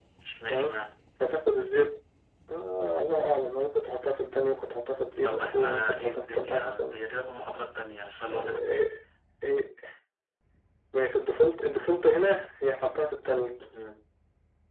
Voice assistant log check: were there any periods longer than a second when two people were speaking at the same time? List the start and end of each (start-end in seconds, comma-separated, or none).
5.2-7.0